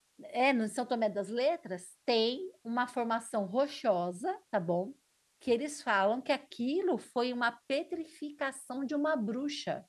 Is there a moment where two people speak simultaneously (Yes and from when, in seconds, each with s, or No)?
No